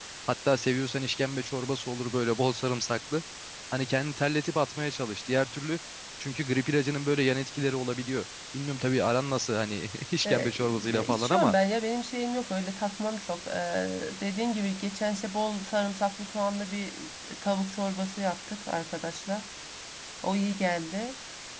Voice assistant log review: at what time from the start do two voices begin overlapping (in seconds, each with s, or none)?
10.2 s